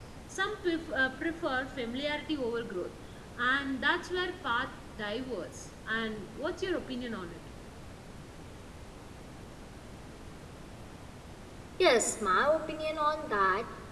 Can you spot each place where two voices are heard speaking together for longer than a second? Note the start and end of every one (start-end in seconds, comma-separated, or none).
none